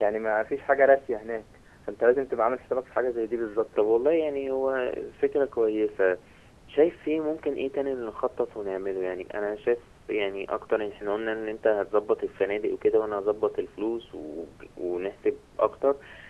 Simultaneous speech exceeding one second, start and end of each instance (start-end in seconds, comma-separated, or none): none